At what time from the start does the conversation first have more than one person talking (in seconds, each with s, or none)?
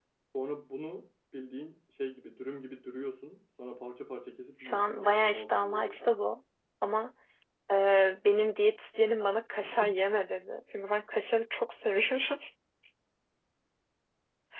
4.6 s